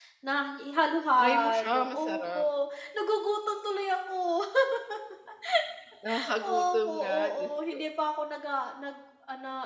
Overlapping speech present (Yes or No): Yes